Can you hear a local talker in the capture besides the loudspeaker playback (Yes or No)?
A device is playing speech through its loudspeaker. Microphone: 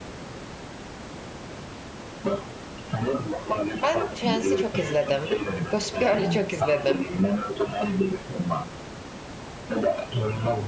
Yes